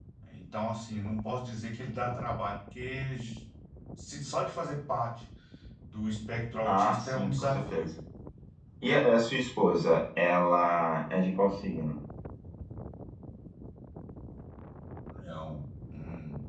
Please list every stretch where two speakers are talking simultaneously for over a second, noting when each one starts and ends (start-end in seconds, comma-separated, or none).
6.6-7.9